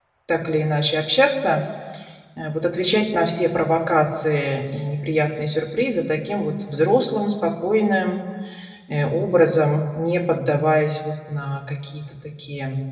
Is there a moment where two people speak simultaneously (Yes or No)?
No